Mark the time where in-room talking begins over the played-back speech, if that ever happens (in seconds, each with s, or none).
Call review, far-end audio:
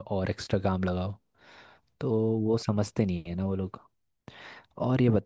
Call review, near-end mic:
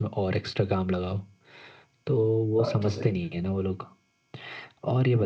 2.6 s